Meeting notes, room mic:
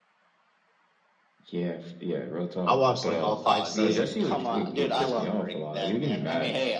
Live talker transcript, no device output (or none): I watched, like, all 5 season in, like, 3 weeks.